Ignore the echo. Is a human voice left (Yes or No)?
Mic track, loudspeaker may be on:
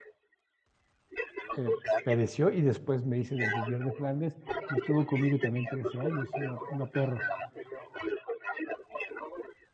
Yes